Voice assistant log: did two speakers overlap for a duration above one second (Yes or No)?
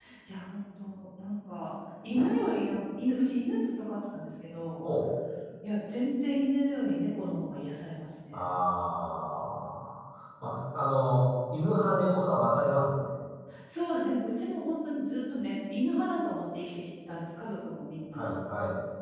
No